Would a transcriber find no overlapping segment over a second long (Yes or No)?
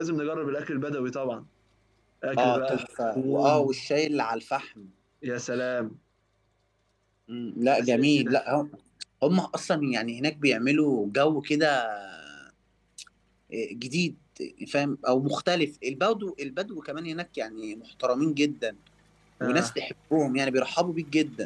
No